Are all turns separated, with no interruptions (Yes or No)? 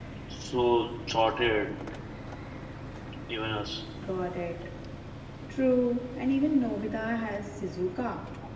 Yes